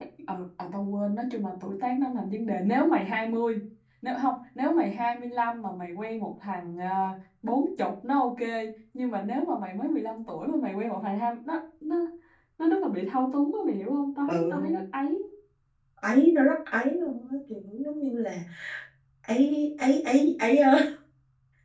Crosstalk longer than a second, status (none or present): none